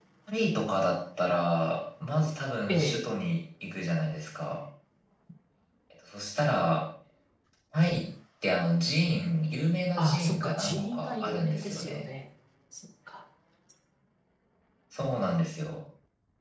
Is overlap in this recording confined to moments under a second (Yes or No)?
No